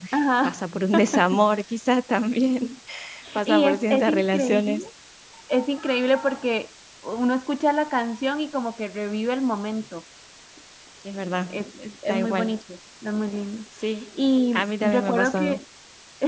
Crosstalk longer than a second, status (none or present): present